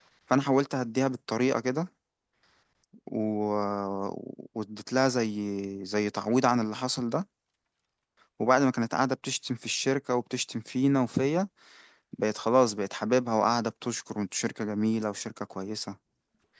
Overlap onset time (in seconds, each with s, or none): none